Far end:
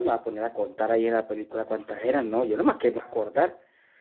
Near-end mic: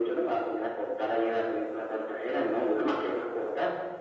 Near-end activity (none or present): none